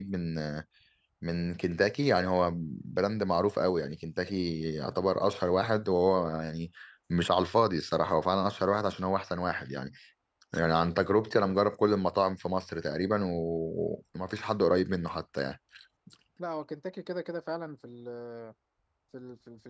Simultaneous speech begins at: none

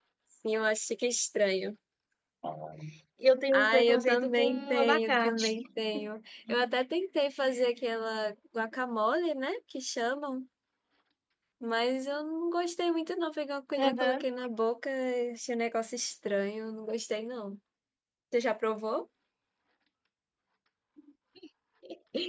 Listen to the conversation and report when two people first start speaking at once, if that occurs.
3.5 s

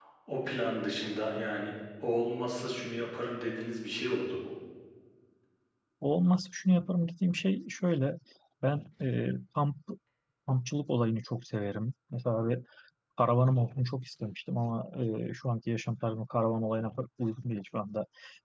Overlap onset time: none

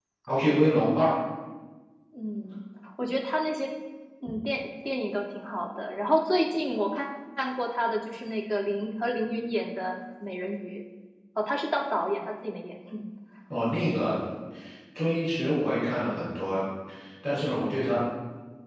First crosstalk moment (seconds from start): none

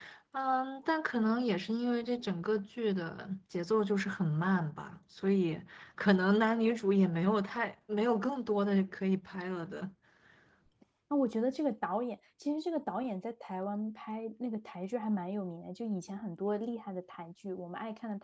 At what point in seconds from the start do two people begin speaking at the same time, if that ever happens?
none

